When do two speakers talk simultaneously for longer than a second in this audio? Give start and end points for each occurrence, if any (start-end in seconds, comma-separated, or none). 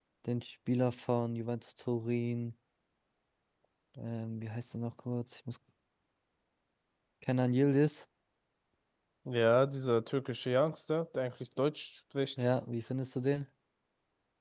none